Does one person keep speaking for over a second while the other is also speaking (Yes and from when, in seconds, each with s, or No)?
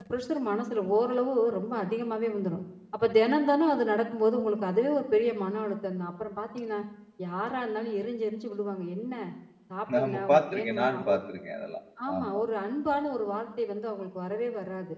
Yes, from 9.9 s